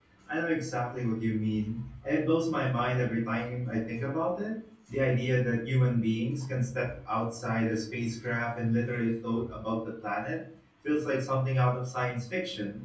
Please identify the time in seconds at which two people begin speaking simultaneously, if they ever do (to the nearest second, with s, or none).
none